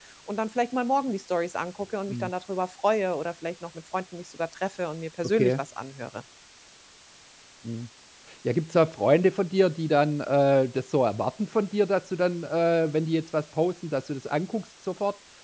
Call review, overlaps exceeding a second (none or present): none